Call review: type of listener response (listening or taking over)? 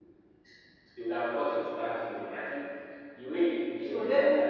taking over